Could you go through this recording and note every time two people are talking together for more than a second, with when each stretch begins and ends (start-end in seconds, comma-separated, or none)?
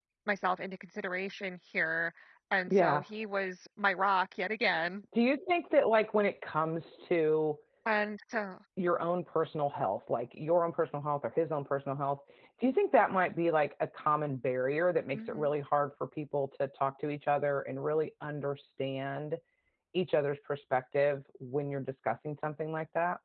none